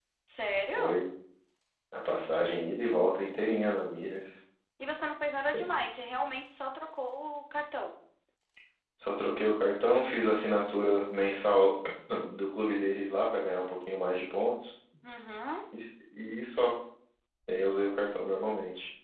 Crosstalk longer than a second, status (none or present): none